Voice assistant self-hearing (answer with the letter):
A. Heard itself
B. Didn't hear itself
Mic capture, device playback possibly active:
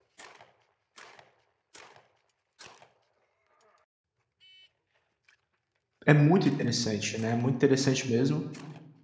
B